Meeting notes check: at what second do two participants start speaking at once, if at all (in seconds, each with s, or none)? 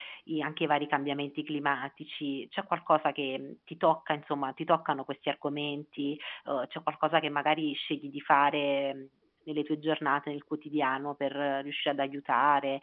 none